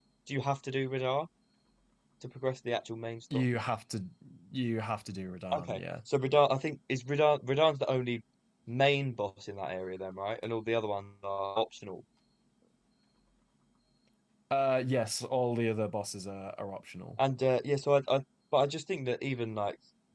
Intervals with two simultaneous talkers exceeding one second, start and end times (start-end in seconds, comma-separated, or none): none